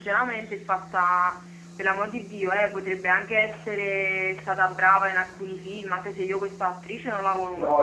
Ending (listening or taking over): taking over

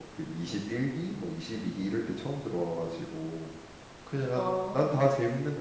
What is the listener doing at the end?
listening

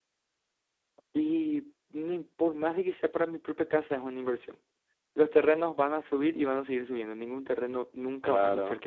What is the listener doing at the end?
taking over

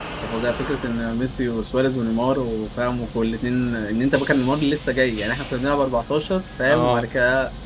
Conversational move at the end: listening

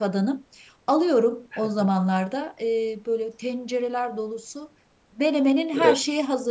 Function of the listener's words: listening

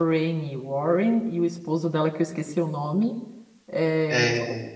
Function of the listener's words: listening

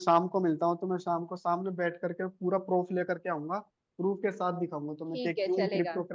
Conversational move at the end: taking over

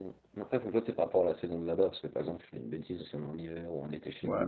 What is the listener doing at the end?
taking over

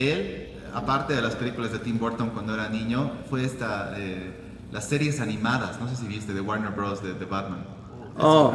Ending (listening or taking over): taking over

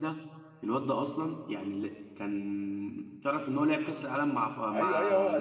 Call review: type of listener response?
taking over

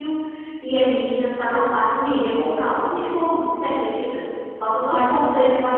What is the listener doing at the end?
listening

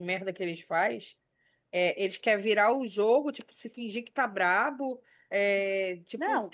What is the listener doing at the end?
listening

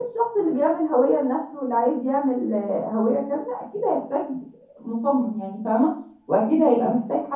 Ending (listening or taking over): listening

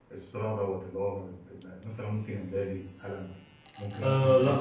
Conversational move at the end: taking over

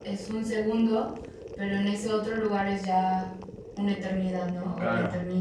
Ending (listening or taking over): taking over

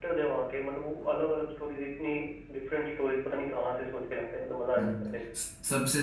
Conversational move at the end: taking over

